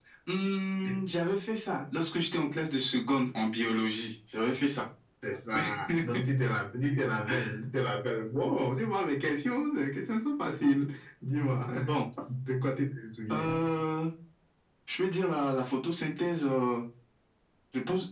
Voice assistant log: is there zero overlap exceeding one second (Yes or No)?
Yes